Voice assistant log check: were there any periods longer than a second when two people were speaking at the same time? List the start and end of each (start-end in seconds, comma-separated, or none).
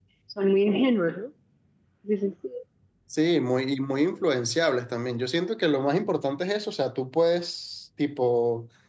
none